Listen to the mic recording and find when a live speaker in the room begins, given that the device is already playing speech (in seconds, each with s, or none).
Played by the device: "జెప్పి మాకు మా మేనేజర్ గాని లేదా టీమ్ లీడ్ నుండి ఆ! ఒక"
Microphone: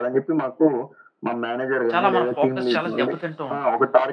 1.9 s